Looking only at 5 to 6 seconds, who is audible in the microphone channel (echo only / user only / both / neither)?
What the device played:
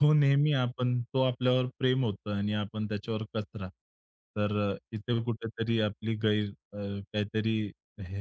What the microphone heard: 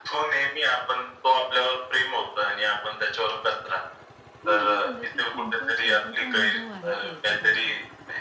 both